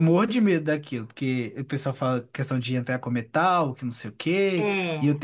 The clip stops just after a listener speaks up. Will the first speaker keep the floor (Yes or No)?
Yes